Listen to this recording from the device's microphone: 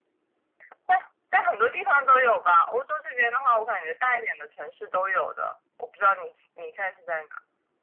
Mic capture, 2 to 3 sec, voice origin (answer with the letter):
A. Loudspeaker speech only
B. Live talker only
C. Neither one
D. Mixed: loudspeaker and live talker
A